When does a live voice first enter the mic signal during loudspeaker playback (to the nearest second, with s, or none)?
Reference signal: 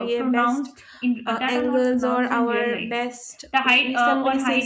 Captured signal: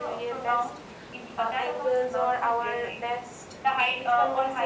none